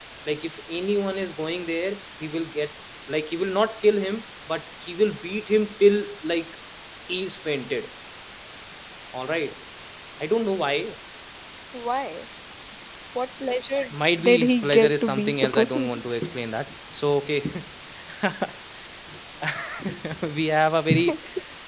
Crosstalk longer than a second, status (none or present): present